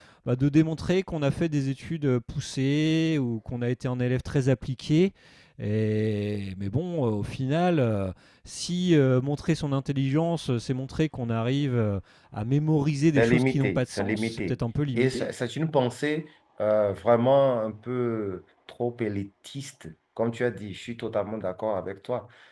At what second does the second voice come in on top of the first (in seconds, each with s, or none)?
13.2 s